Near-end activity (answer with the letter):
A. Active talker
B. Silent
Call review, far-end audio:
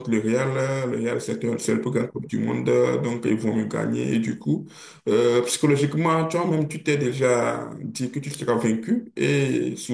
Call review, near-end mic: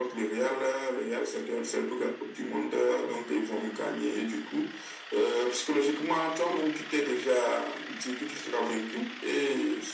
B